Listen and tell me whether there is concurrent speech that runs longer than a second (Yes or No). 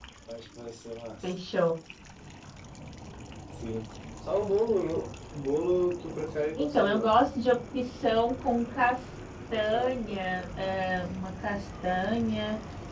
Yes